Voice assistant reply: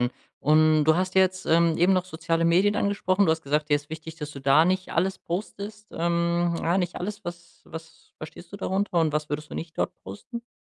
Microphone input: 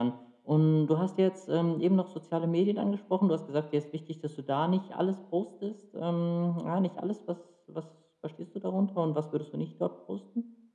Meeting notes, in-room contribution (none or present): none